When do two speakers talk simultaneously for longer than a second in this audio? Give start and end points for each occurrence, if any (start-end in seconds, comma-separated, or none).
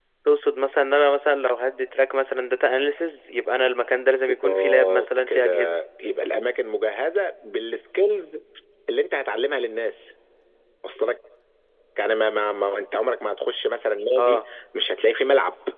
4.4-5.8